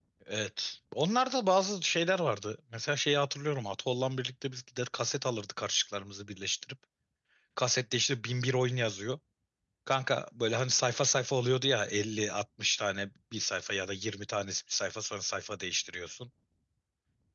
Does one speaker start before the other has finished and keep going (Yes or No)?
No